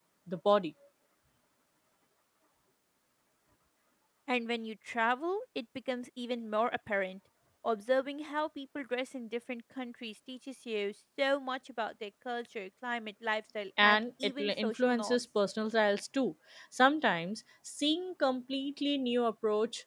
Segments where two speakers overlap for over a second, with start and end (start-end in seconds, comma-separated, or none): 13.8-15.2